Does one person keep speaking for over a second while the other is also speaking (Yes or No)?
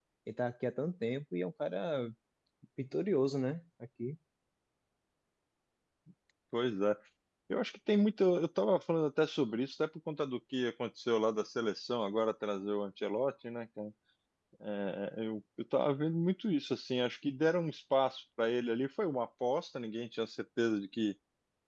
No